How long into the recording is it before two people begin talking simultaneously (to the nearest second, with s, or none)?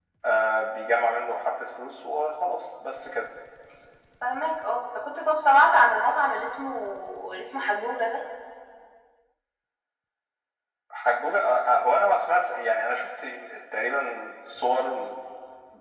none